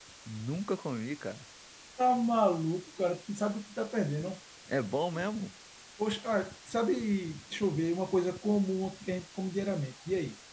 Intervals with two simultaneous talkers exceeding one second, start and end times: none

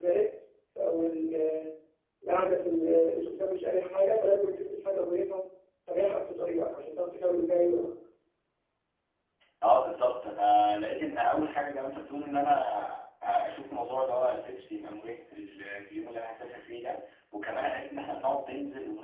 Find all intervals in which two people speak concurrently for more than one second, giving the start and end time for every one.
none

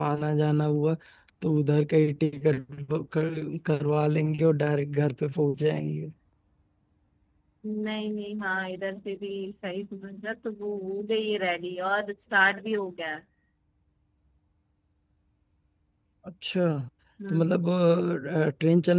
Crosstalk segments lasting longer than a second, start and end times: none

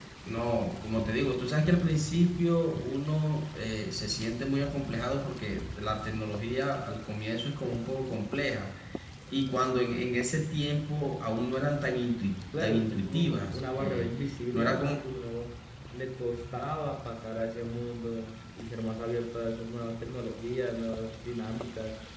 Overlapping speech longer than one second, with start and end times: 12.6-14.1

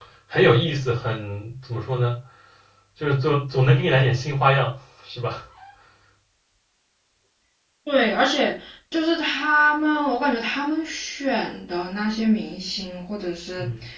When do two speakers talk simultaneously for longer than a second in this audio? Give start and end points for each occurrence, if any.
none

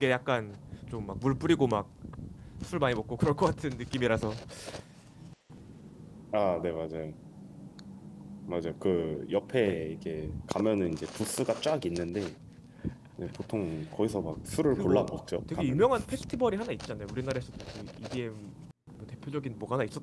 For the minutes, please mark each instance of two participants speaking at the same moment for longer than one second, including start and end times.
none

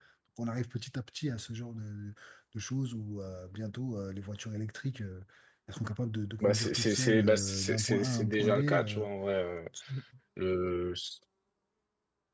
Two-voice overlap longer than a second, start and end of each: 6.4-9.1

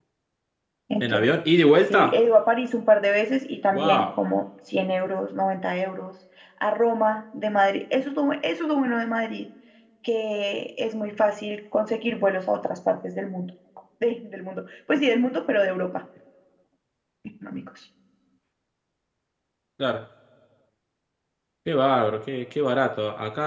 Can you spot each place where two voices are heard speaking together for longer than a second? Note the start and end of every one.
none

